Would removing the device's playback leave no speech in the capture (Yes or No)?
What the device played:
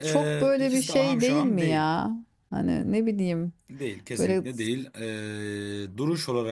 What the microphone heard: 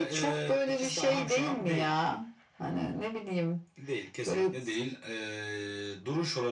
Yes